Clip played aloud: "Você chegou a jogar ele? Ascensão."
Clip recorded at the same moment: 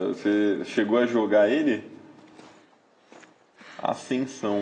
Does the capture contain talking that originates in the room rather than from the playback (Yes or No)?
No